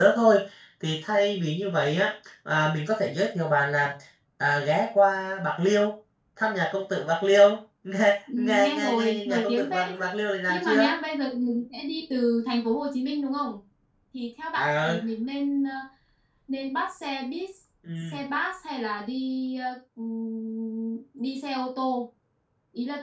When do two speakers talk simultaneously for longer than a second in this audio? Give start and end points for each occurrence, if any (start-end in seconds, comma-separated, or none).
8.4-10.1